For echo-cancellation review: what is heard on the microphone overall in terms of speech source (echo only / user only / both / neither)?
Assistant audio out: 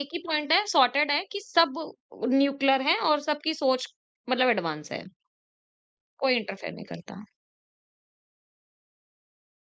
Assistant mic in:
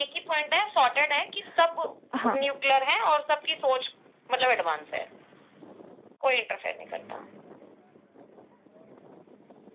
both